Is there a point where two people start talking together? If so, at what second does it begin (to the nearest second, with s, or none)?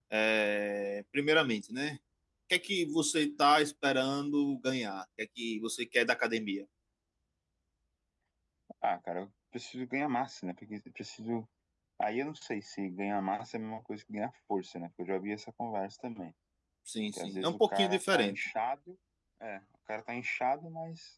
17 s